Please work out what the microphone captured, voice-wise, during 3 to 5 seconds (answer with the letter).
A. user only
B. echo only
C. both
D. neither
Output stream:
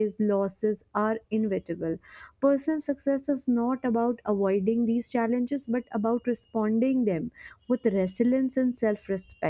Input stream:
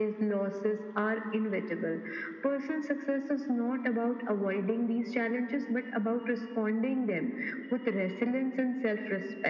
B